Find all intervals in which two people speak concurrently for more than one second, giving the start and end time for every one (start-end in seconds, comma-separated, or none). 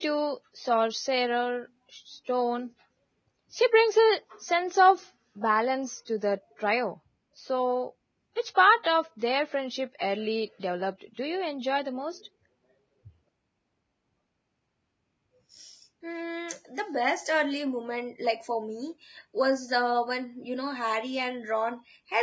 none